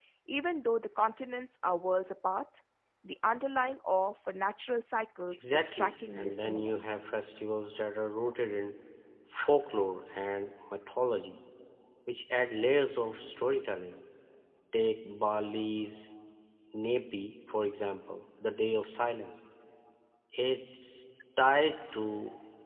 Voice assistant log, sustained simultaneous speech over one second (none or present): present